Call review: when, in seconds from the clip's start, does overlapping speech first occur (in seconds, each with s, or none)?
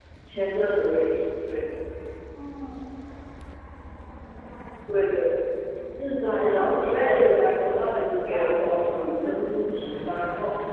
6.2 s